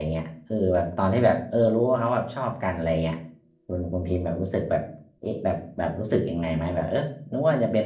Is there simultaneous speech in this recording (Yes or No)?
No